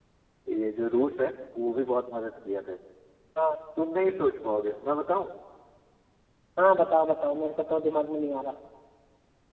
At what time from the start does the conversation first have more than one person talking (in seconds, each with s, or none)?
none